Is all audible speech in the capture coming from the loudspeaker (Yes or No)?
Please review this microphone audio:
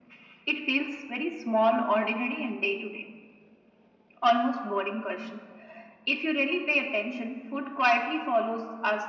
Yes